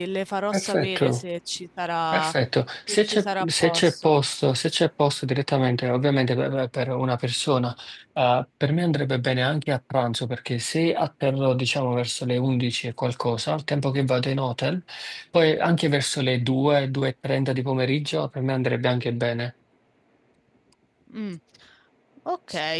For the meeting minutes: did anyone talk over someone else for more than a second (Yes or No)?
Yes